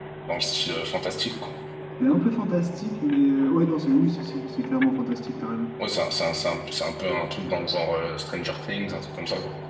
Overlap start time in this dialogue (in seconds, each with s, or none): none